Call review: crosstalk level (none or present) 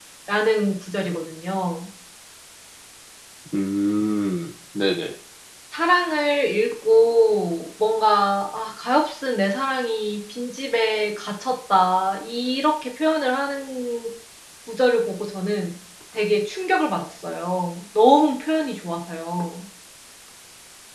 none